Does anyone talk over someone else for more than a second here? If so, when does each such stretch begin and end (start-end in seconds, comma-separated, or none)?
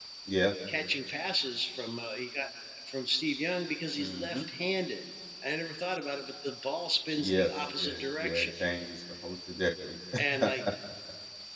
7.2-8.5